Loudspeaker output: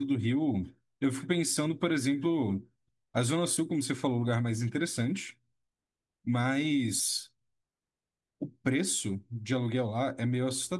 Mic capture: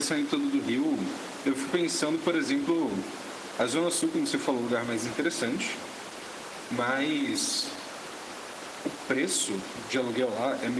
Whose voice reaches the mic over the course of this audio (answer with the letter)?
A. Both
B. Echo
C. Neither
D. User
B